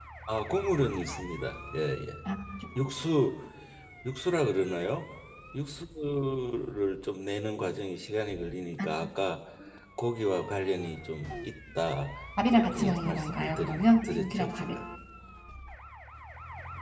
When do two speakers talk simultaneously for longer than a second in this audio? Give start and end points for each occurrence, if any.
12.5-14.8

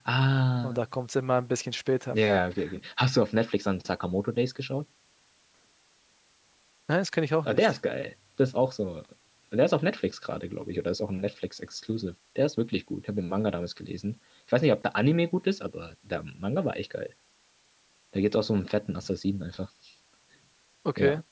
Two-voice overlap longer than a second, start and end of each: none

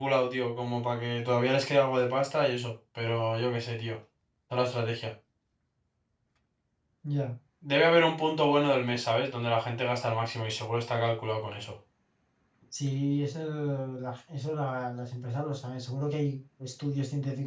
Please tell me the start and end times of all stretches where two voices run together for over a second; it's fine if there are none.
none

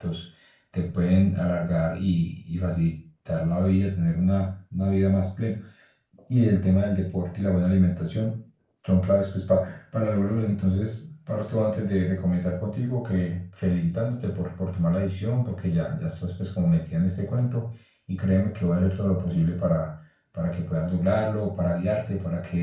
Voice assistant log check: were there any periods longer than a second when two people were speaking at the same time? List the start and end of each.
none

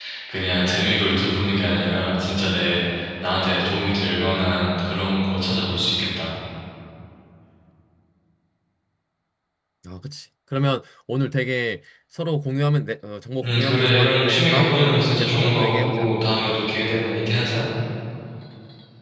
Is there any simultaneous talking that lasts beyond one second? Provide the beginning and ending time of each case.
13.4-16.1

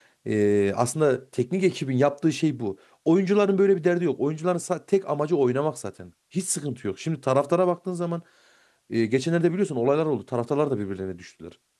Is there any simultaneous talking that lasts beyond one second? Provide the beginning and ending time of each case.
none

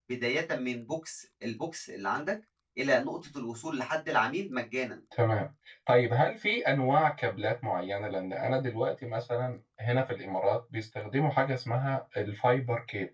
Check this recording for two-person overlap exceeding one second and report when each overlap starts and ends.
none

